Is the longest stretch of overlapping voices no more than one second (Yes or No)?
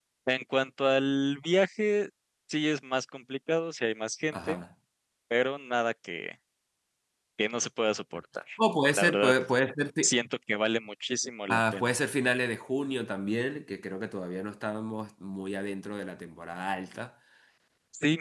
Yes